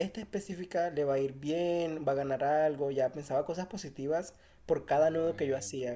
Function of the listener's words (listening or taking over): listening